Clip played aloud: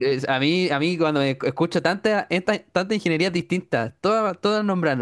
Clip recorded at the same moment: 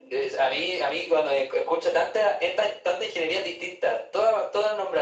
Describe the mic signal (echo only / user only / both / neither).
echo only